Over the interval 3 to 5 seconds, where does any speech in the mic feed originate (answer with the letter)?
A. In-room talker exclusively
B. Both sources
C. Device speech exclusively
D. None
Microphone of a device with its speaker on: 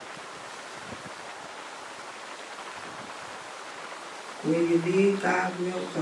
A